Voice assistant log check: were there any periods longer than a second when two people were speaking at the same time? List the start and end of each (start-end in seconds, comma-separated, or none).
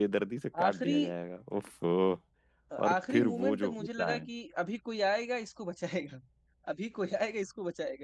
2.9-4.2